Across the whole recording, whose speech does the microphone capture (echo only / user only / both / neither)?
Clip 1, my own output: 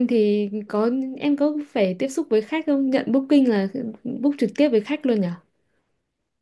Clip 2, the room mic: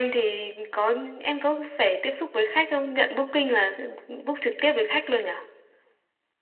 echo only